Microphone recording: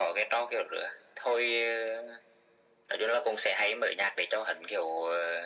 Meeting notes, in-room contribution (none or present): none